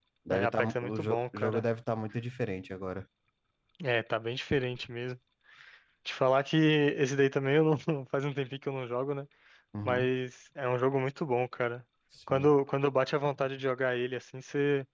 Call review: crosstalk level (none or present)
present